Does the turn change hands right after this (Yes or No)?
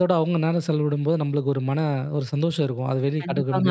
Yes